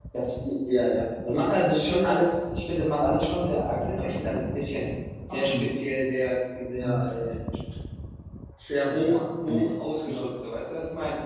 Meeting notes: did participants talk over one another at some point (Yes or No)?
Yes